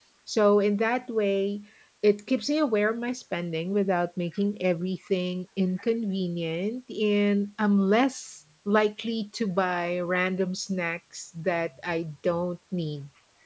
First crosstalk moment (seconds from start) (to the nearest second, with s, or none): none